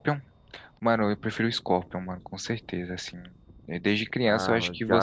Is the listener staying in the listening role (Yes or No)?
No